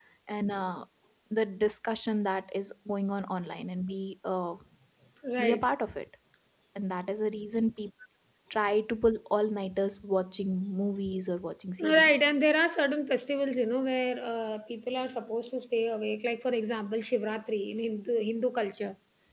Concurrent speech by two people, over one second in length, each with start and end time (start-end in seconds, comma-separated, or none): none